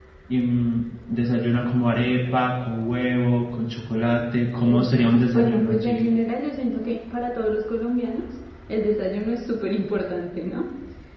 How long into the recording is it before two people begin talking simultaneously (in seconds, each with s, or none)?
4.7 s